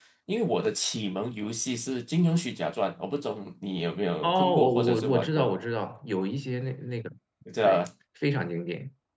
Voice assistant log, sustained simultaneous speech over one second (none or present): present